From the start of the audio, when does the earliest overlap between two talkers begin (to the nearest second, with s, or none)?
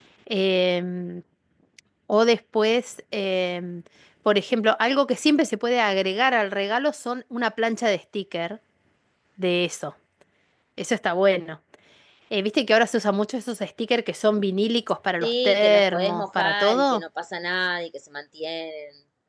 15 s